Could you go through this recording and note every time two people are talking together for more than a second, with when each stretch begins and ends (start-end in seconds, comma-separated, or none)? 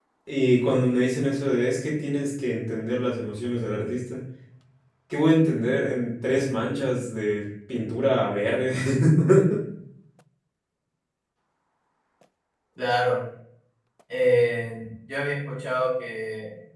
none